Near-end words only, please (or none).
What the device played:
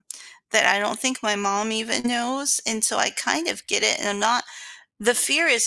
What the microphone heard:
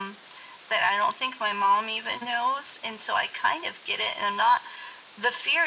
none